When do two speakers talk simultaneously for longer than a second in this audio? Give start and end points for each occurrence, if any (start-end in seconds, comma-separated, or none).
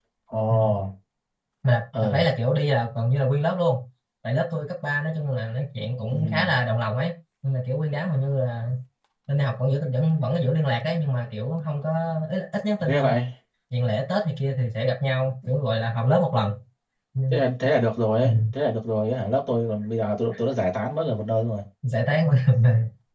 none